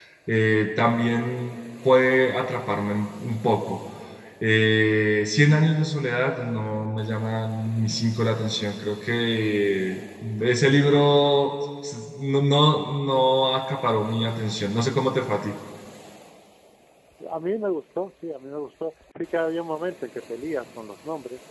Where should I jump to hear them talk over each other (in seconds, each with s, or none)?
none